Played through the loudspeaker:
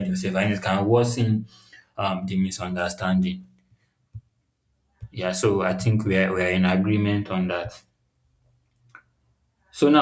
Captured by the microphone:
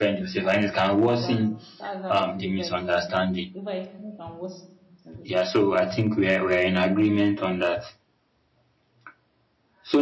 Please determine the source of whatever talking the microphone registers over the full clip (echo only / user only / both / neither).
both